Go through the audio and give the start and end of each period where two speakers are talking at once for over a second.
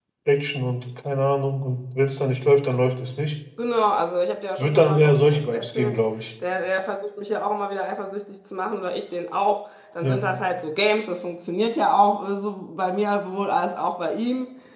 4.6-6.0

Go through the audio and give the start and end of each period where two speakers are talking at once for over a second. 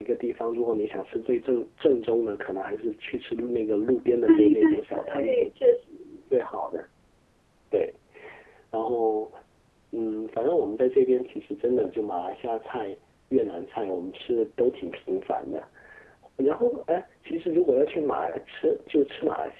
4.3-5.5

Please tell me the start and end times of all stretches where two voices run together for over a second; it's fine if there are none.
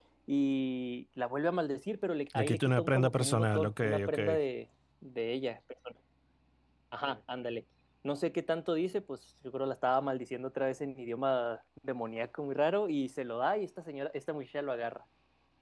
2.3-4.2

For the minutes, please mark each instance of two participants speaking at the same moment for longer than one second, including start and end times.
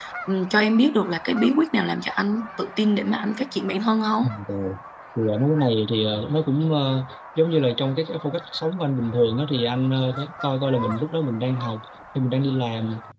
none

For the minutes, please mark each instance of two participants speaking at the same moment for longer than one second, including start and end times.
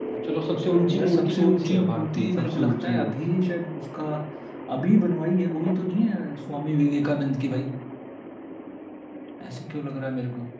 0.9-3.1

